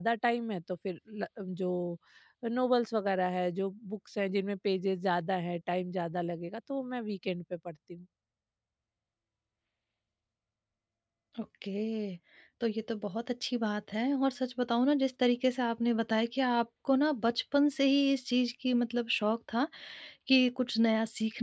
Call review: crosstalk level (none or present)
none